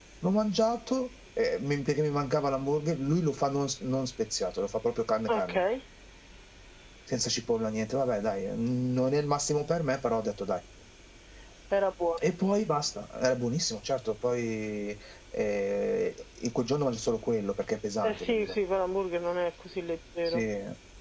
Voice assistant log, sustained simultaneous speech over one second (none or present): none